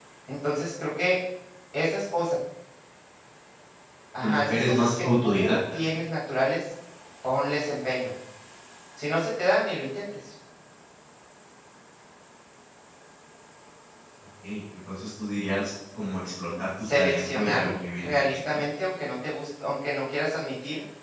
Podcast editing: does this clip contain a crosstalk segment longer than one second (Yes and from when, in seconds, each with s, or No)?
Yes, from 4.2 s